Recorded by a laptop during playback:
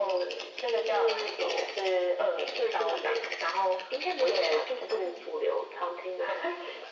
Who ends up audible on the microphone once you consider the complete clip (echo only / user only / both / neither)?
echo only